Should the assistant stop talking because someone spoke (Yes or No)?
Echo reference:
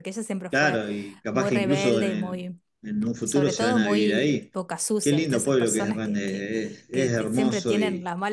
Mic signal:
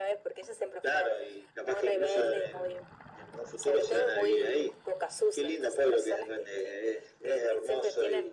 No